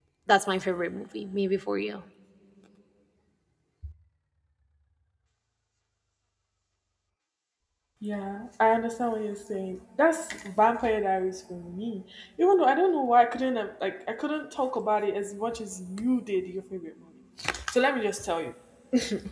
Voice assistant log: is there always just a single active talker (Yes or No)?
Yes